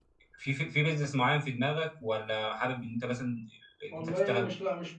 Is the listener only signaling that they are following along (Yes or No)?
No